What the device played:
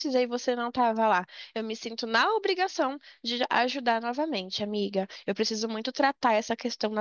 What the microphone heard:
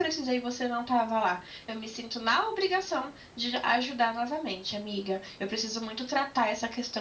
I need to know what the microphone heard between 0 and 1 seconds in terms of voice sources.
echo only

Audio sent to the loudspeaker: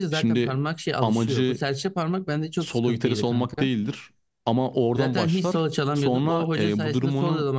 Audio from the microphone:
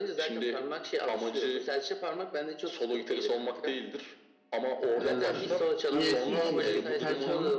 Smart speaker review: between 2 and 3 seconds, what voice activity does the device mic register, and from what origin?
echo only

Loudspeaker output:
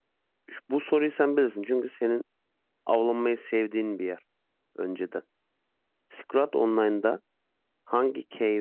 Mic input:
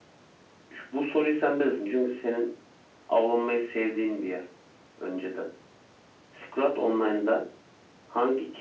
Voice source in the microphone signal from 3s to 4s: echo only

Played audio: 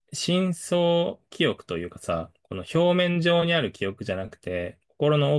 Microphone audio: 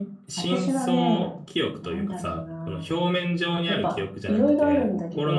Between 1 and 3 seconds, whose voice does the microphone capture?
both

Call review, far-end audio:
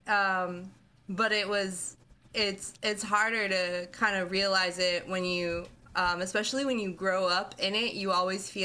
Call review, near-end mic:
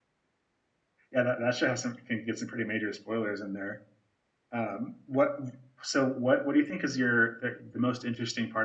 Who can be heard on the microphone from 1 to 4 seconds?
user only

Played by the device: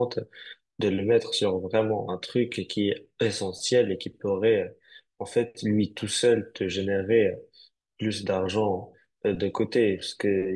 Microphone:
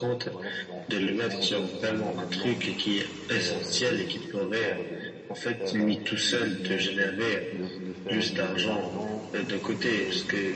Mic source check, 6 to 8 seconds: both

